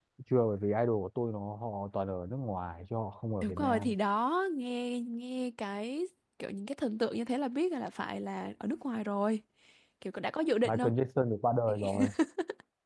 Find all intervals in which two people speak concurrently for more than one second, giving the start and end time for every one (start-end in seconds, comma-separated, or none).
none